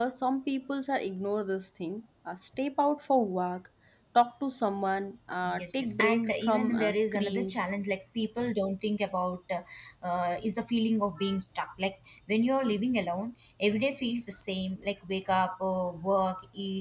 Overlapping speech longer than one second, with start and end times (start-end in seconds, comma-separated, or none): 5.6-7.6